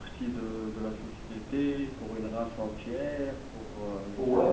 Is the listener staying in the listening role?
No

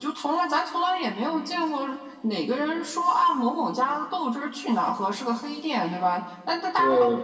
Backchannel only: Yes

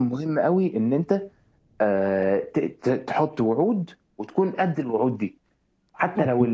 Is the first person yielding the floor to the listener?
No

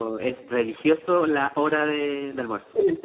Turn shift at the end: No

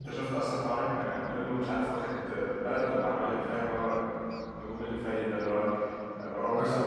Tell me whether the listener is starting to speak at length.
No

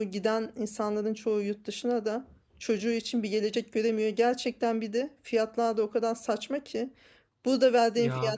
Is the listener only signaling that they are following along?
Yes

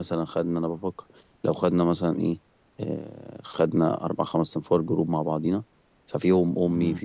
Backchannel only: Yes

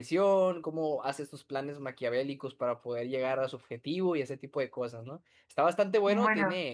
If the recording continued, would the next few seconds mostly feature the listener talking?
No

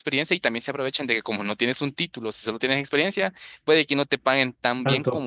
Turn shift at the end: No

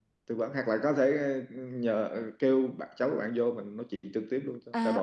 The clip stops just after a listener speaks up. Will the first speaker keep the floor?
No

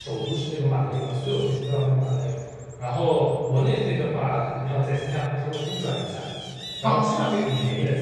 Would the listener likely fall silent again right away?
Yes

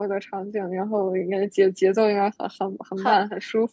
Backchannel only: No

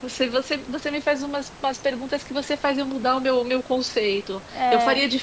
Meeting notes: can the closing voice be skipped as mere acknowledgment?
Yes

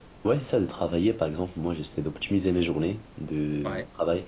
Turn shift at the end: No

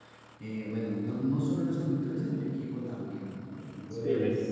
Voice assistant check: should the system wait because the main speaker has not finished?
No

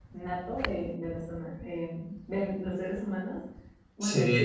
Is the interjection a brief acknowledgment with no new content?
No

